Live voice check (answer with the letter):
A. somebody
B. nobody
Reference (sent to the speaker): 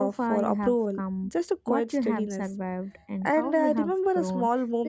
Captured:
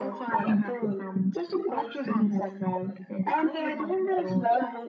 B